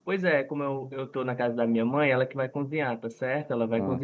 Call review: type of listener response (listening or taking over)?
listening